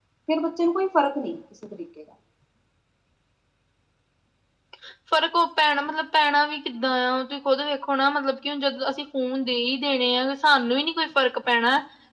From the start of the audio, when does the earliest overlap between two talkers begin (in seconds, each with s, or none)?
none